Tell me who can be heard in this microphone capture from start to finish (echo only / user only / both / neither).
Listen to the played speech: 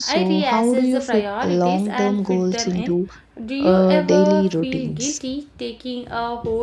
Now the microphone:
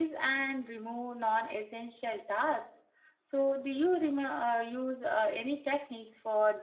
user only